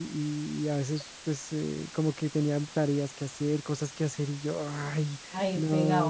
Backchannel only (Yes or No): Yes